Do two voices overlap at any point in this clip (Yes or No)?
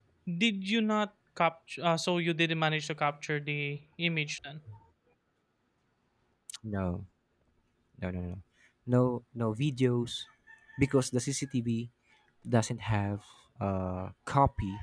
No